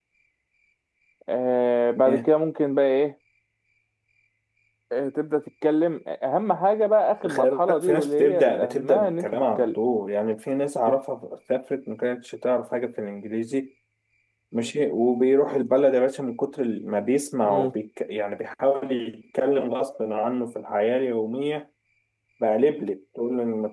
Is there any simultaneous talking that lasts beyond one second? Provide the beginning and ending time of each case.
7.3-9.8

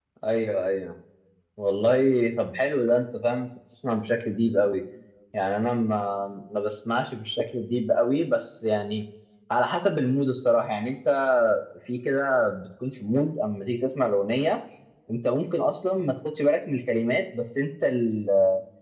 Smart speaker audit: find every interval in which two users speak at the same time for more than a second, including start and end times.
none

